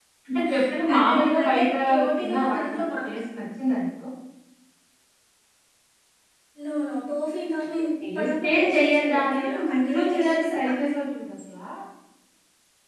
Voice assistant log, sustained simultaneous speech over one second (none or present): present